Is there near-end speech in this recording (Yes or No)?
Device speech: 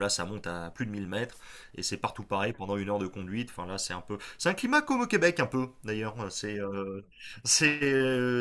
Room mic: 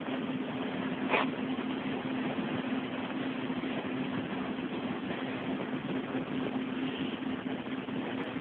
No